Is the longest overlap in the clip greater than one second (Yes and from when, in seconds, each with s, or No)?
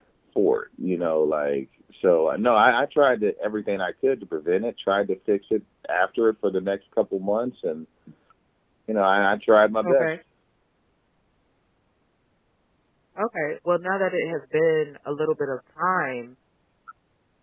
No